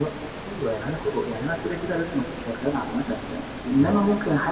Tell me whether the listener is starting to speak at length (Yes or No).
No